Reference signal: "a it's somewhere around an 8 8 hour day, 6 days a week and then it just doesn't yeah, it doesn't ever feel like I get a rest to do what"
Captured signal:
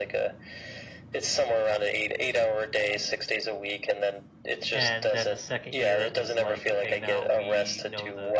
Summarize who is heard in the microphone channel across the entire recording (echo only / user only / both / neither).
both